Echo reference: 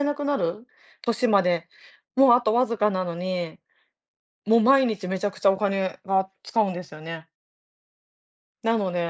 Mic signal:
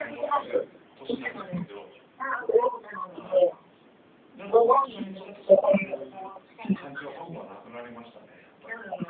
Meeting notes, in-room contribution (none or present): present